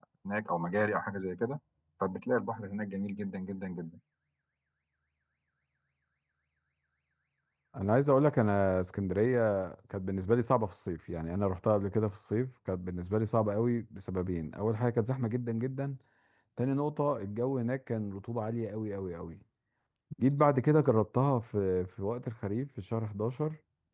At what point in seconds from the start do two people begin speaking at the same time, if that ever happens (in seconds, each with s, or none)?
none